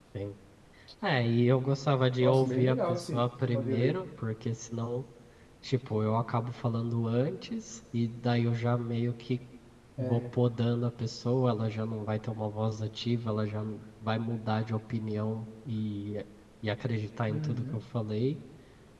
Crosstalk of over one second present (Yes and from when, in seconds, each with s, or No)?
Yes, from 2.2 s